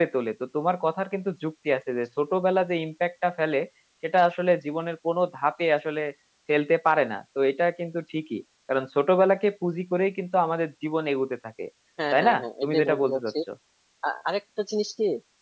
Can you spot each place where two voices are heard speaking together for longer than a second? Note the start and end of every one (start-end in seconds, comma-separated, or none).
12.1-13.3